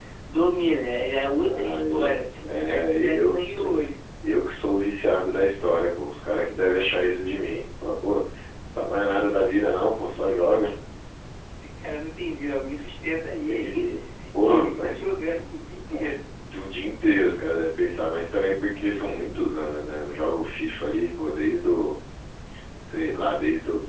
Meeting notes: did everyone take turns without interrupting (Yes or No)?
No